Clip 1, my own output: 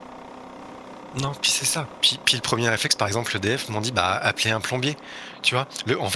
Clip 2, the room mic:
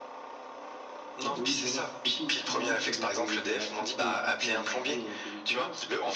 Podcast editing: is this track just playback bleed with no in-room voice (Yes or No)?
No